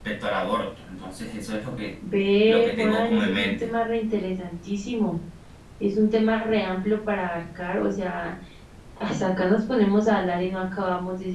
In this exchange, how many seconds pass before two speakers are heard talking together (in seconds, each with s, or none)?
2.5 s